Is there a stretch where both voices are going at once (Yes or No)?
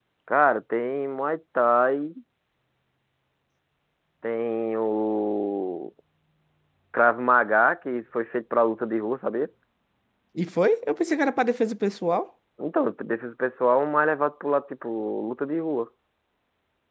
No